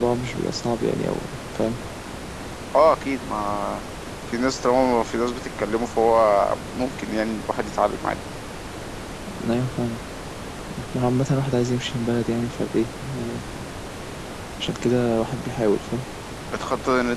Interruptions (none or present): none